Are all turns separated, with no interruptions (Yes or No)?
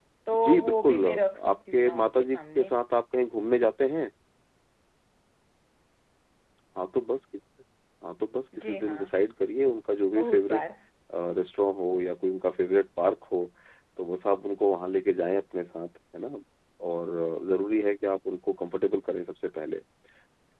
No